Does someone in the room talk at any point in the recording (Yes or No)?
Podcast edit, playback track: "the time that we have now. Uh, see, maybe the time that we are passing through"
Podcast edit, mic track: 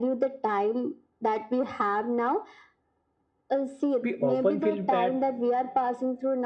Yes